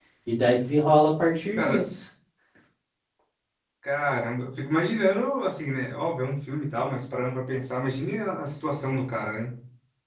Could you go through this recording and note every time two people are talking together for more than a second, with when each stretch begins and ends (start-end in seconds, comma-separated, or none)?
none